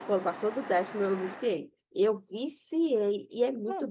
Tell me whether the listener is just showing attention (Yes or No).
Yes